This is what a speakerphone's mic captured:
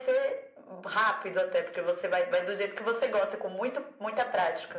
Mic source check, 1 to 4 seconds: echo only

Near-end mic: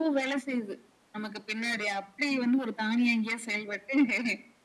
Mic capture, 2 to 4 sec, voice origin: echo only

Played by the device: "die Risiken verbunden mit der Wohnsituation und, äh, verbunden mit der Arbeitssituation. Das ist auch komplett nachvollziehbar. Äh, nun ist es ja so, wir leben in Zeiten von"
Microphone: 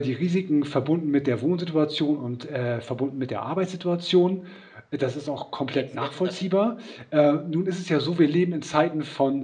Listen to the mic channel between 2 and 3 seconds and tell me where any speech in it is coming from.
echo only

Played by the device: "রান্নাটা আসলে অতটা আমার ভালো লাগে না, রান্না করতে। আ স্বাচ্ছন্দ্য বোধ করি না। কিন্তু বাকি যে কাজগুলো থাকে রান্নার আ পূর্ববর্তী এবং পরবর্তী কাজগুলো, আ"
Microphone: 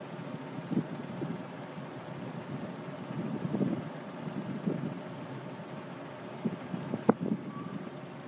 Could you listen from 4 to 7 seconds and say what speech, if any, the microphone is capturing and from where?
neither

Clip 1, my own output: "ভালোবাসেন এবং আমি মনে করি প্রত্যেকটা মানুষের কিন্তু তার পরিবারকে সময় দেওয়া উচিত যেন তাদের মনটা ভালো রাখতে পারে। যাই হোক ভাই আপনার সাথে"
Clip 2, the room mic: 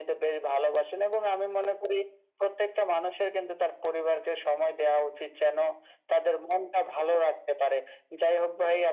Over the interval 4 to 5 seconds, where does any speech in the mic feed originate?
echo only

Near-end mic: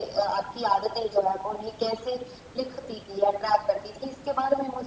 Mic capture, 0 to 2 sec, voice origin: echo only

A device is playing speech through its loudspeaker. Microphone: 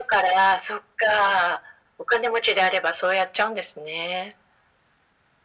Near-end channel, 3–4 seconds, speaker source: echo only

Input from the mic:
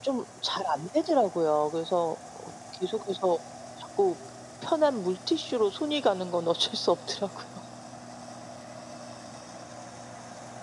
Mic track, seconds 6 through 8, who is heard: echo only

